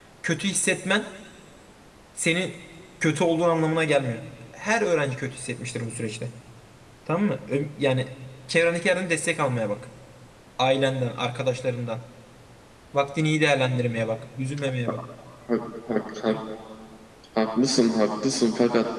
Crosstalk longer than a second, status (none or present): none